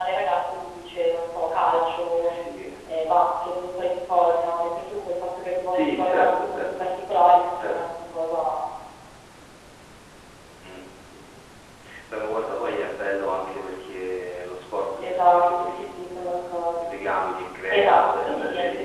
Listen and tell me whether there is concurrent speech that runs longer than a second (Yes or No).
Yes